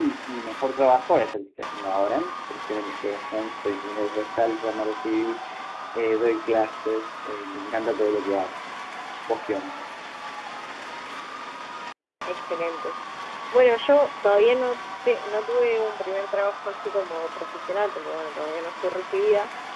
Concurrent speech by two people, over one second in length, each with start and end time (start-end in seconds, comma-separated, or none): none